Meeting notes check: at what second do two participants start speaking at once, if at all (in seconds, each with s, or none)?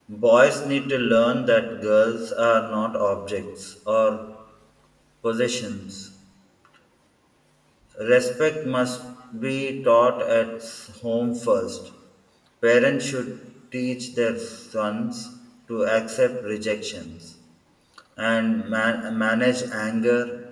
none